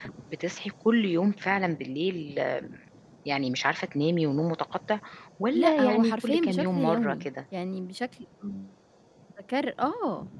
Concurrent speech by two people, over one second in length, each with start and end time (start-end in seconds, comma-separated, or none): 5.5-7.3